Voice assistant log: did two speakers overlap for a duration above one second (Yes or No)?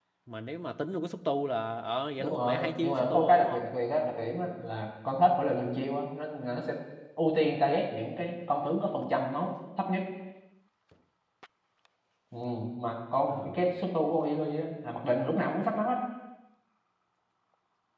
Yes